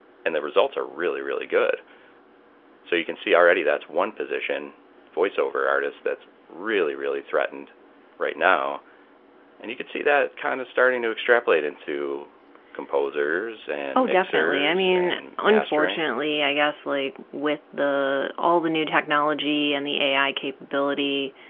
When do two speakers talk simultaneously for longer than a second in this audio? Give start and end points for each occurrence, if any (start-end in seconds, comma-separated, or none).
13.9-16.0